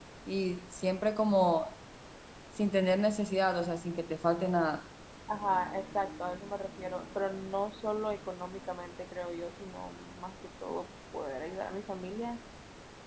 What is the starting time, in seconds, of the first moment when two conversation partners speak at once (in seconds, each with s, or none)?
none